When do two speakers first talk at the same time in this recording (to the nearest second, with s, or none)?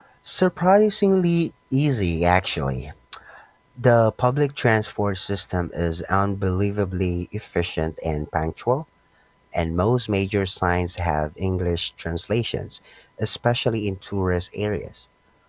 none